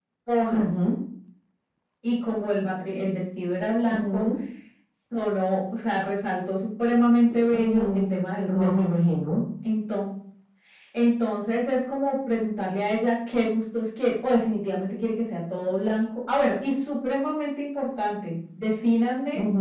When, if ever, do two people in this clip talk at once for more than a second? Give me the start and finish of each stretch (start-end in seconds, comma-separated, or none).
none